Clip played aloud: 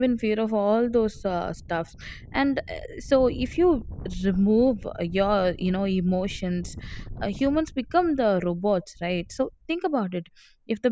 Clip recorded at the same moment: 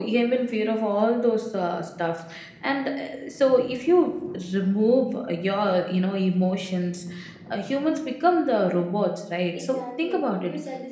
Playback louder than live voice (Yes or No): Yes